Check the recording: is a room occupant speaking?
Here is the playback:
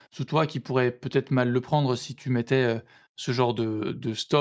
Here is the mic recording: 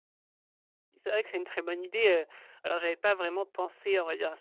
Yes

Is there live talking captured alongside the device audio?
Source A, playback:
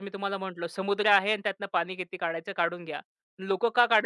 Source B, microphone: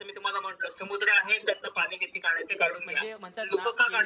Yes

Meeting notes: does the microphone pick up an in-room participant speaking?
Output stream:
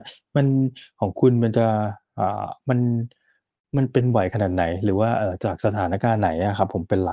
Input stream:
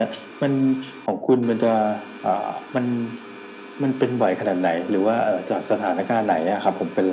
No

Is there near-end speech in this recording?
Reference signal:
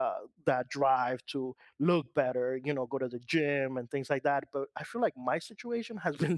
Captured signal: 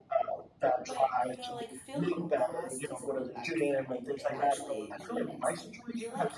Yes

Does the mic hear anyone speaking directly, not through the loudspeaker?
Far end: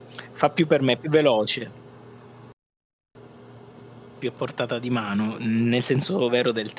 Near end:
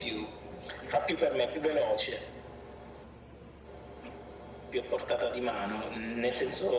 No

